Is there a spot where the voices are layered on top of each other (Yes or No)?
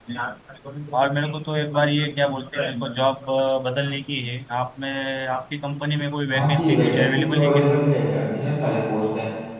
Yes